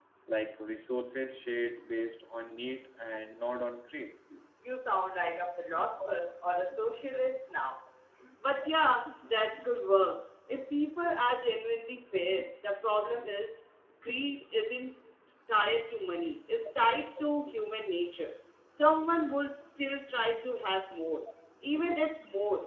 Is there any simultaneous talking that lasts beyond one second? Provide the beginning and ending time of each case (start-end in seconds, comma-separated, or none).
none